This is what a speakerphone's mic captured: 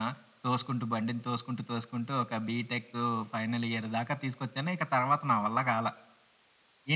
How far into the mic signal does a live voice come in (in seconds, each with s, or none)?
none